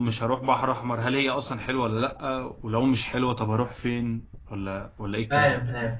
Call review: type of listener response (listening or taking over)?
taking over